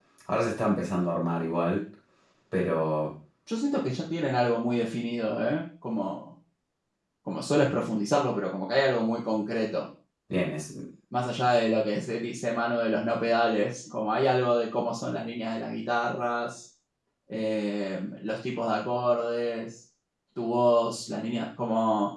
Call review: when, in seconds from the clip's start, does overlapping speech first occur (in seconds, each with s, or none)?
none